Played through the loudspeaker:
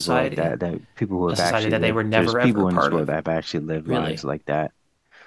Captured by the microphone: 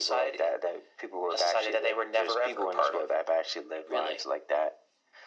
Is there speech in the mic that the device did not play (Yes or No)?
No